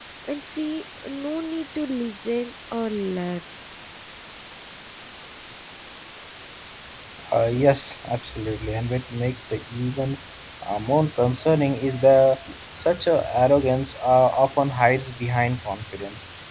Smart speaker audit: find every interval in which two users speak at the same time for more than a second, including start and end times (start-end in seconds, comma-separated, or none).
none